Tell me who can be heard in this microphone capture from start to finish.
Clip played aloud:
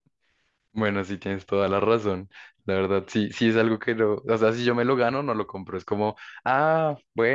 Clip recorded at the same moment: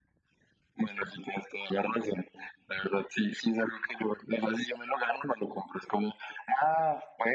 echo only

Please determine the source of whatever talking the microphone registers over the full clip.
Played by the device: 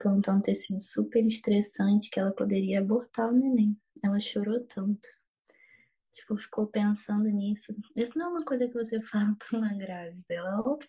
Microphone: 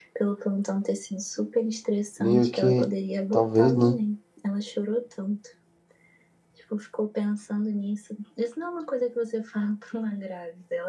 both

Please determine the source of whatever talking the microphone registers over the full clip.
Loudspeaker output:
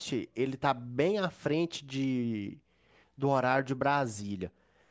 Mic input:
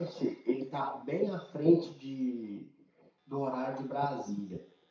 echo only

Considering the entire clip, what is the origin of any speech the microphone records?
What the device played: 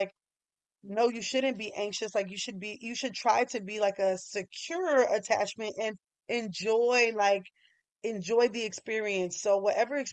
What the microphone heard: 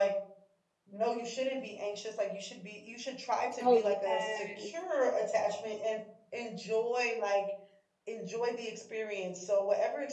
both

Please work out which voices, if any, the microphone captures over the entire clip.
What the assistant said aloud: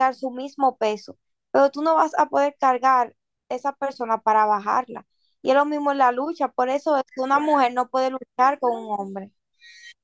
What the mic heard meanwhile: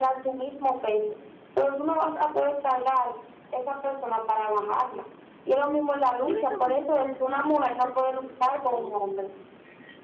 both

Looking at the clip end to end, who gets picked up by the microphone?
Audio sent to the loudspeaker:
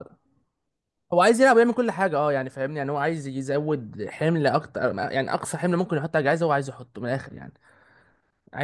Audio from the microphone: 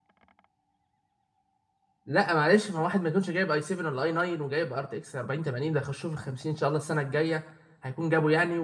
user only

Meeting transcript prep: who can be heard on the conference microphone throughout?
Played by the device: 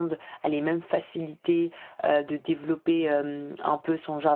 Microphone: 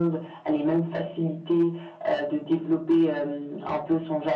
echo only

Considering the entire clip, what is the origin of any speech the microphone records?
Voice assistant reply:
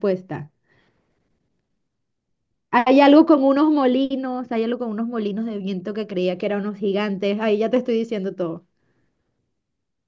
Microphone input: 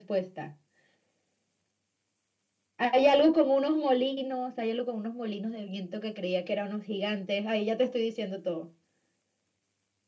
echo only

